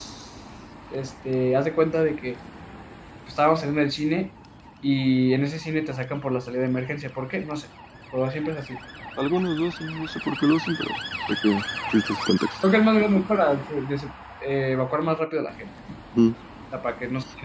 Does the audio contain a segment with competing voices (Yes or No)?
No